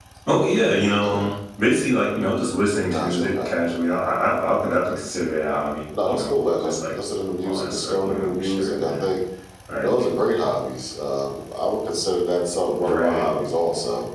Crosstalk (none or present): present